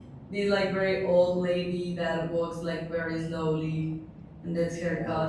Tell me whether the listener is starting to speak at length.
Yes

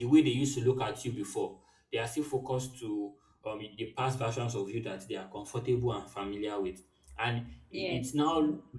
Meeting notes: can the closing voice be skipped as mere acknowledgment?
Yes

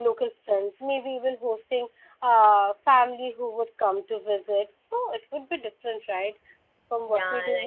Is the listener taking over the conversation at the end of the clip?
No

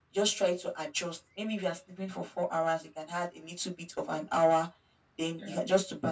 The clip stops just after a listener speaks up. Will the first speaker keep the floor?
Yes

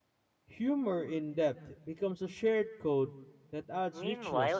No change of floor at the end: No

